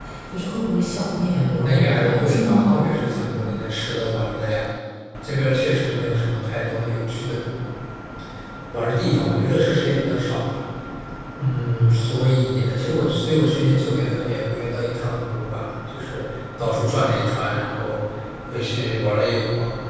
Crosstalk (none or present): present